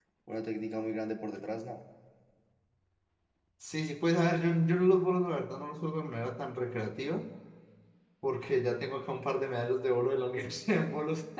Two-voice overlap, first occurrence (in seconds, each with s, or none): none